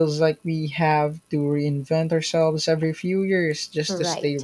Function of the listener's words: taking over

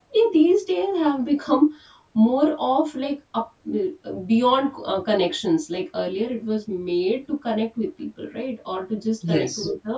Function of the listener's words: listening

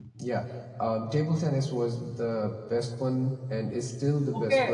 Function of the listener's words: taking over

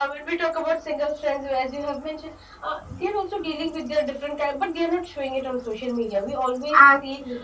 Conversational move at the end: listening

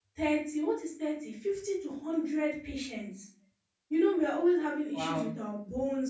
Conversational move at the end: listening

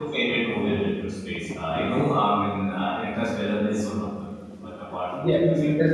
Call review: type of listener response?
taking over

